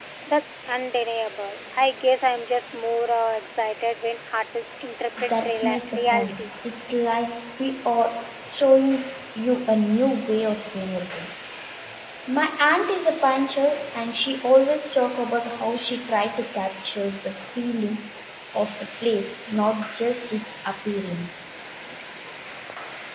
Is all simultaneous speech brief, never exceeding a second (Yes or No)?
No